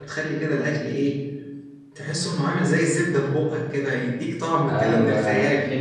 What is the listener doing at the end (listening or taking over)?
taking over